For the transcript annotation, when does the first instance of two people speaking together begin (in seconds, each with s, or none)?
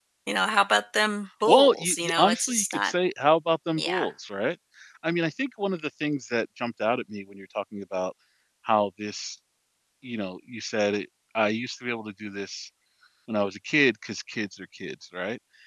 1.5 s